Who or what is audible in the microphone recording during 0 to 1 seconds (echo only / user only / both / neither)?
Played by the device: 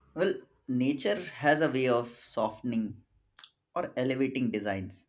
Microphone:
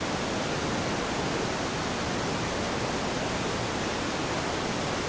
neither